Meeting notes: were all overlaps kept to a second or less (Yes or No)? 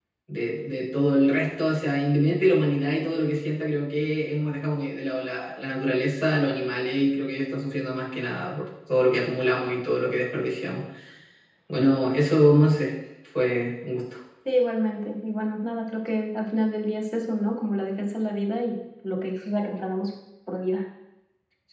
Yes